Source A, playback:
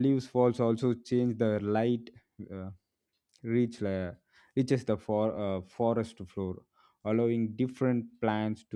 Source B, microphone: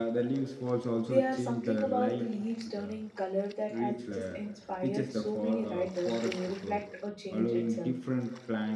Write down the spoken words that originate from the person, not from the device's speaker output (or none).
there are something about the leaves turning color that has just inspired so many writers to reflect or change itself